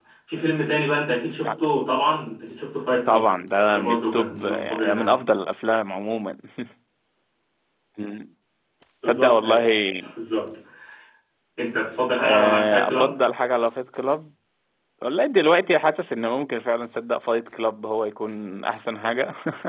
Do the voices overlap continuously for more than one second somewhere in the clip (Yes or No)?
Yes